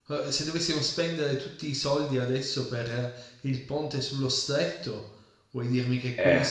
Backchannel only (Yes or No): Yes